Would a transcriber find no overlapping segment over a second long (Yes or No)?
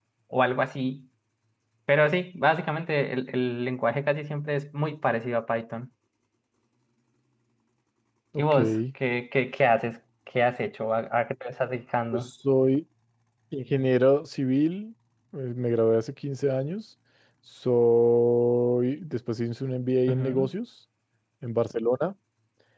Yes